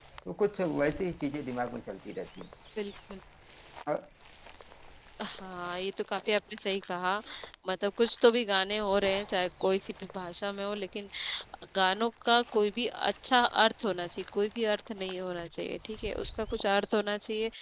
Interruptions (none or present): none